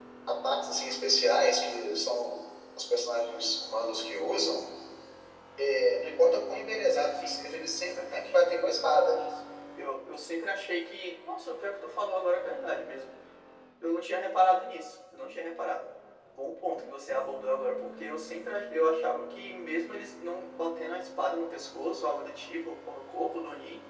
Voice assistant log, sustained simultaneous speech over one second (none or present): none